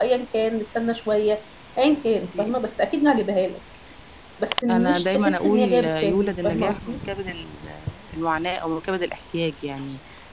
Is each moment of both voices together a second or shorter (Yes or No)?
No